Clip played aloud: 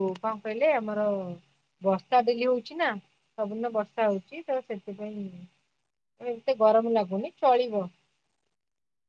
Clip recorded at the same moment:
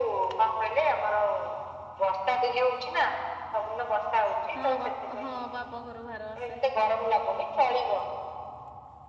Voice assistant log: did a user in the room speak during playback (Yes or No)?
Yes